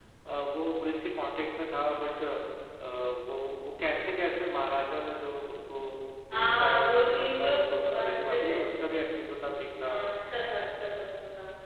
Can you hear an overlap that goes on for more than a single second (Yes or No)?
Yes